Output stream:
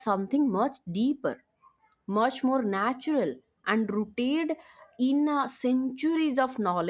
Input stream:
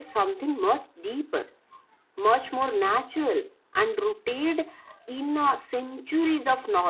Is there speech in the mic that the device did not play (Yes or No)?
No